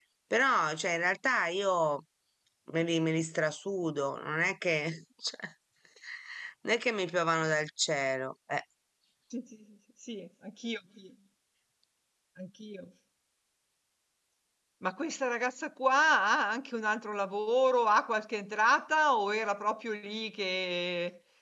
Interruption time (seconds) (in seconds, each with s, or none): none